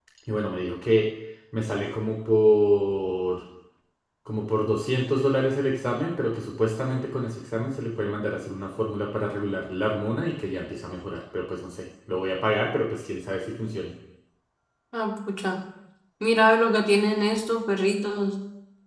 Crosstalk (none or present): none